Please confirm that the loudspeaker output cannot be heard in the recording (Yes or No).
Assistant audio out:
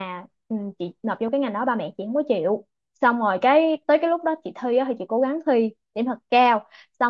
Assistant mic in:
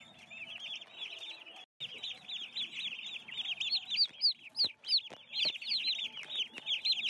Yes